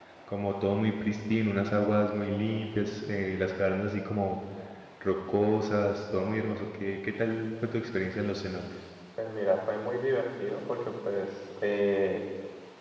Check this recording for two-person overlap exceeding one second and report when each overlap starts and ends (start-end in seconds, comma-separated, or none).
none